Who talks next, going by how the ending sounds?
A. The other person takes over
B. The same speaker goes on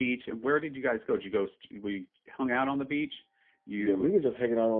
A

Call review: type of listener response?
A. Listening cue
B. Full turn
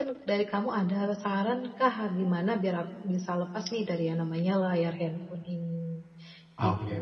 B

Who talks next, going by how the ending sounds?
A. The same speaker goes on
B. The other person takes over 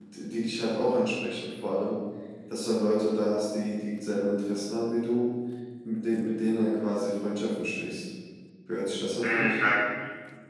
B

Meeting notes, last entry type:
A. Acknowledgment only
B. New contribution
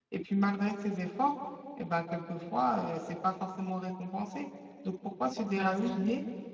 A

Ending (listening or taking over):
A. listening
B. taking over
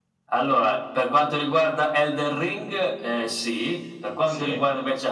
A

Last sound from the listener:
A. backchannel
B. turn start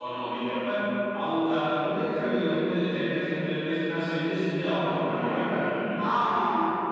B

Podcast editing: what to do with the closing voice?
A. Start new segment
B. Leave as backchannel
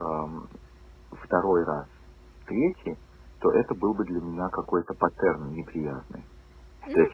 A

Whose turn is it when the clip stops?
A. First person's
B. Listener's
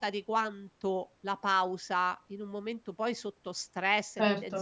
A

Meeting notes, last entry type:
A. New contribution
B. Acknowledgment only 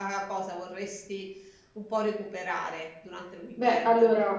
A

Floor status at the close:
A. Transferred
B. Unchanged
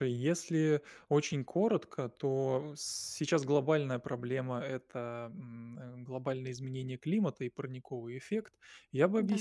B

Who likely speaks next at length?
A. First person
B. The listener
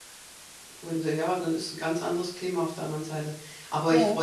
A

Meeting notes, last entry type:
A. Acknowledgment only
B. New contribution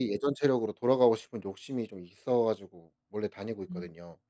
B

